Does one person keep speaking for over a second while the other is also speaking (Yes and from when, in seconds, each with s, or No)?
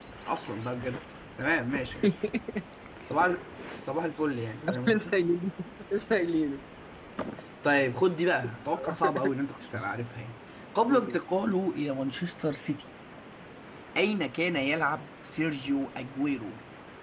No